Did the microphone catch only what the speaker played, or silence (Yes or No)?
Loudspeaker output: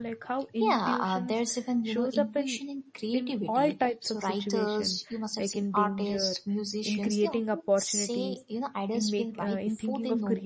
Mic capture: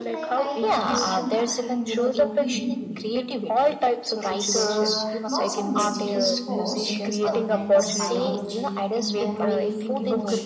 No